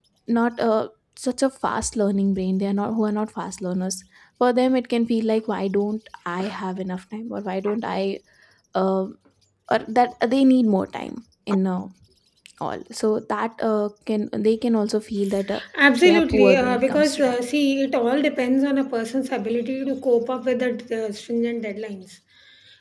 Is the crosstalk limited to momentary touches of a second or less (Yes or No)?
No